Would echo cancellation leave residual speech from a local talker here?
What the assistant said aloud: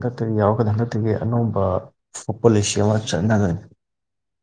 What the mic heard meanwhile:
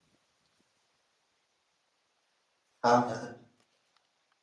Yes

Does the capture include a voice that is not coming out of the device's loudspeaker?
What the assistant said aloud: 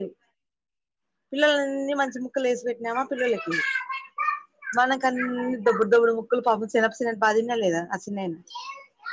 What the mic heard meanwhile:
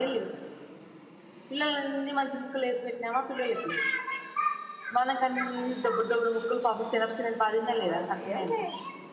Yes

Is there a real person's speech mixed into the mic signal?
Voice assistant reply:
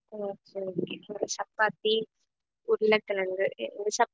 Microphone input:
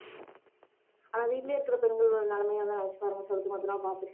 Yes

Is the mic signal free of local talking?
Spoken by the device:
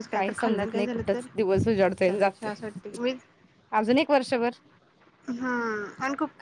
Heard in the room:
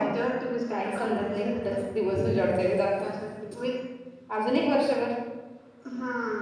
Yes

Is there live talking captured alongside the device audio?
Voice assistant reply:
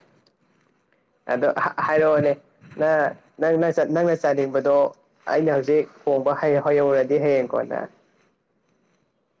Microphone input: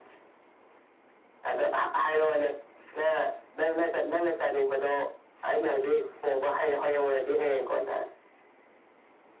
No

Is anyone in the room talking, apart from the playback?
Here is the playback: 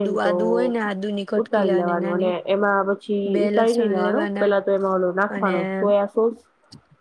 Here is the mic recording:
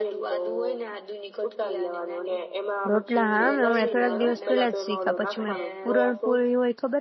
Yes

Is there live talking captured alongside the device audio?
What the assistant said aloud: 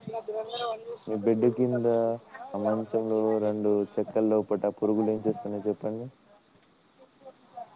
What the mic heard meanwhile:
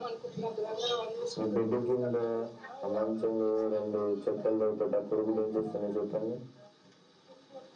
No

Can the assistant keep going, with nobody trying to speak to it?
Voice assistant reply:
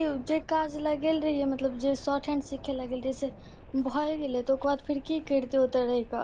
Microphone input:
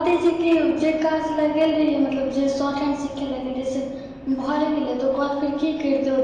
Yes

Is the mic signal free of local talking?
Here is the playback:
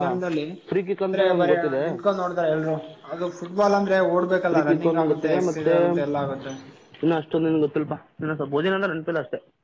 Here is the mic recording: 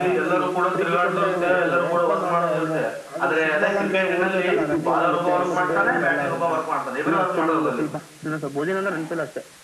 No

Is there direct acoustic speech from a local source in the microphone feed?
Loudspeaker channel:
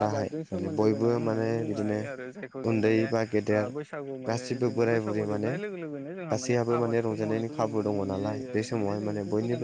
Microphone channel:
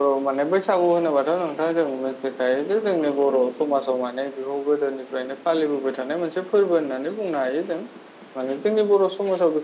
Yes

